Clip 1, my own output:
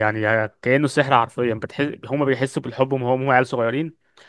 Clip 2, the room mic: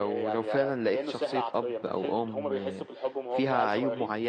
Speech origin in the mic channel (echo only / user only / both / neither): both